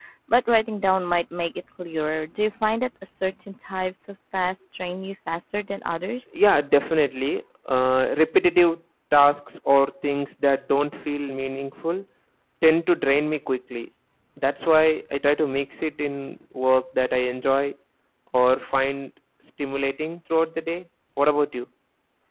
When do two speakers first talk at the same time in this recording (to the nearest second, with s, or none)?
none